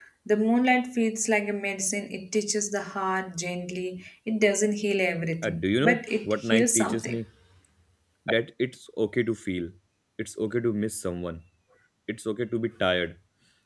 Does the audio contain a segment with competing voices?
Yes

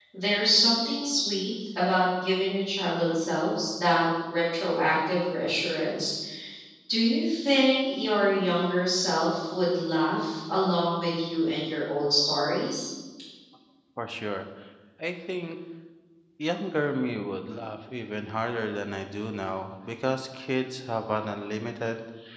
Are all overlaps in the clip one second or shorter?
Yes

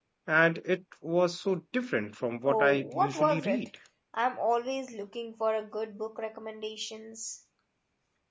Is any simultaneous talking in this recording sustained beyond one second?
Yes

